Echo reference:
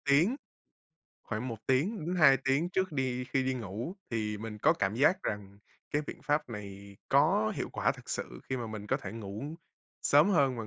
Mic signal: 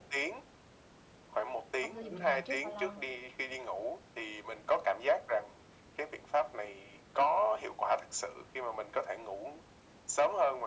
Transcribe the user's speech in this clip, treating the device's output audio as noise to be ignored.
Không sử dụng điện thoại trước bao lâu?

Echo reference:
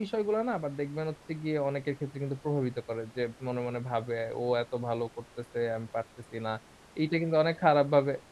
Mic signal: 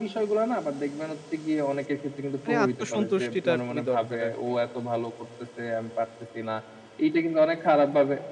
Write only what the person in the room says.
মানে আত্মসন্তুষ্টিটা খুবই দরকার আর কি।

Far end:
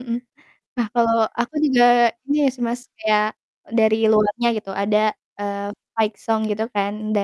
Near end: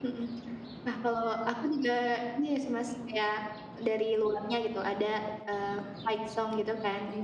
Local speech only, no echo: none

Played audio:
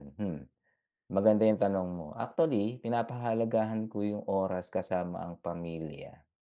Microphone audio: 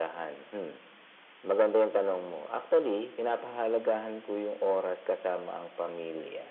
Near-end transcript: none

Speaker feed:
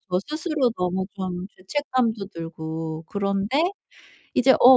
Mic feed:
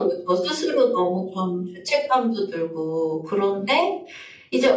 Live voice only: none

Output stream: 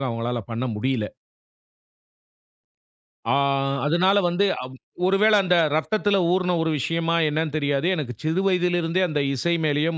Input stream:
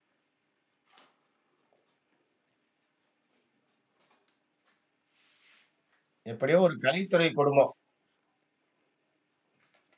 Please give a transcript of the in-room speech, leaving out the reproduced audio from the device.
எப்படியோ ஒரு கலைத்துறை குடும்பம்.

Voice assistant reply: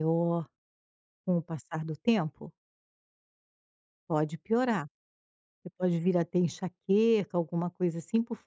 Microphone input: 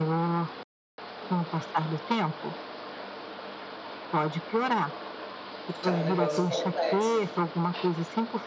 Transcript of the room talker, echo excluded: porque é um negócio complexo.

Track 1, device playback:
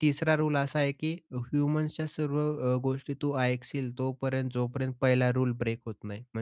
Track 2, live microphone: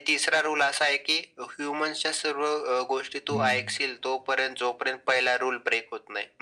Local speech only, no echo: हं, हं.

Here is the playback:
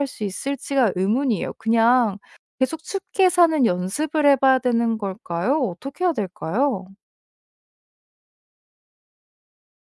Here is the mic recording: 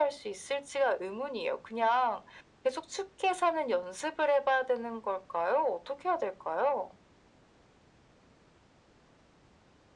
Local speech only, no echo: none

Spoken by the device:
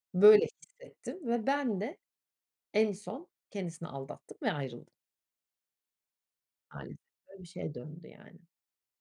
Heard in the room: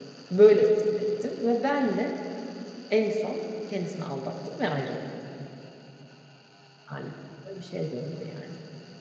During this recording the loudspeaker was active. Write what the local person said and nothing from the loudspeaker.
none

